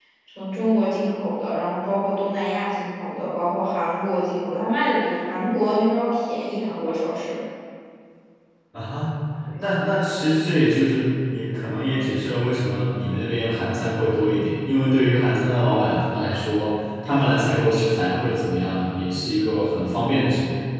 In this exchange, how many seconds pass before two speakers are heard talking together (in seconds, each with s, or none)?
none